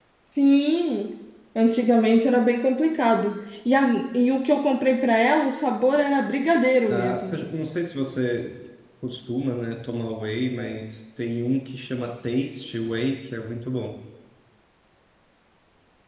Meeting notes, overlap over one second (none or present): none